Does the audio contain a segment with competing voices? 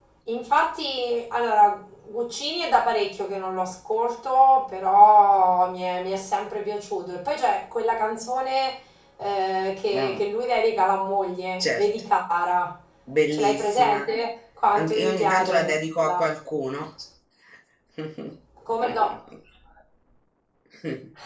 Yes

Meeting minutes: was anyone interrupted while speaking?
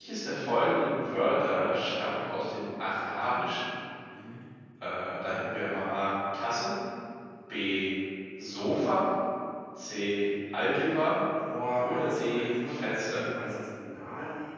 Yes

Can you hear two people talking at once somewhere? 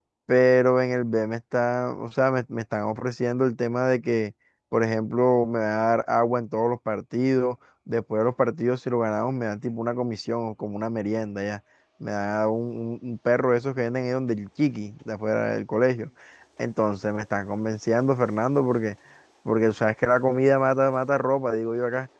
No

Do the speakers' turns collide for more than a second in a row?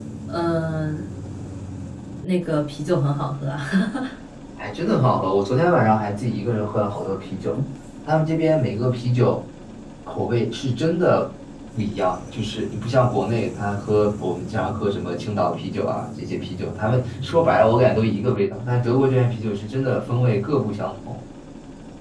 No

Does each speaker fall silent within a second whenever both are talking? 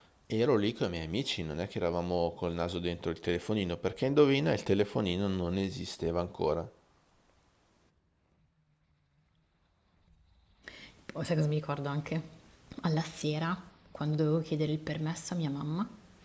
Yes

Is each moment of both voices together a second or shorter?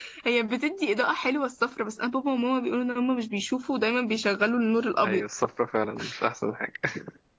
Yes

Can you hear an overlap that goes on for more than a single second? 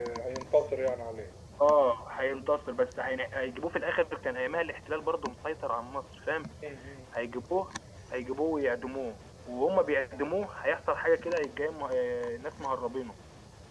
No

